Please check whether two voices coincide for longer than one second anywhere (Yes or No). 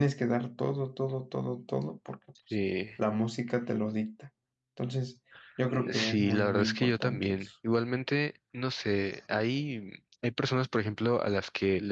Yes